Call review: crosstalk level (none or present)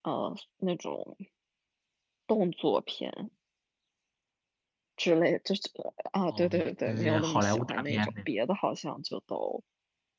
present